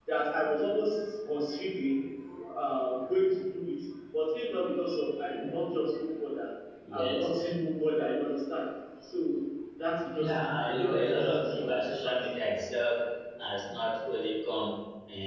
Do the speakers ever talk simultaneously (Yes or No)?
Yes